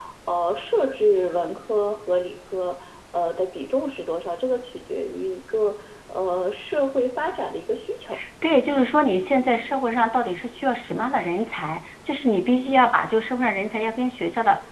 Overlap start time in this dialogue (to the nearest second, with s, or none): none